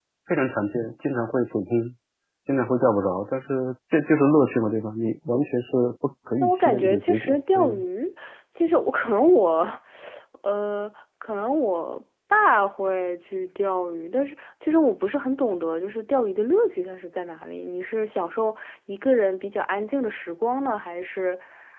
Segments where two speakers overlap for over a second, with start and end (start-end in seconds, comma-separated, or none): 6.4-7.8